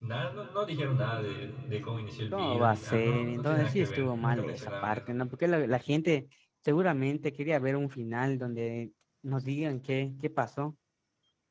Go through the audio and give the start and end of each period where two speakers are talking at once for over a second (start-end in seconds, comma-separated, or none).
2.3-5.1